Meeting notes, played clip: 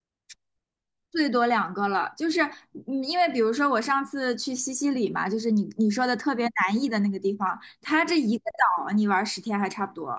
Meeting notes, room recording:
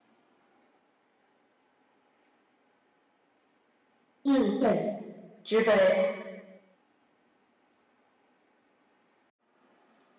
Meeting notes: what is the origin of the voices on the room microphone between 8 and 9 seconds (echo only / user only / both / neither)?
neither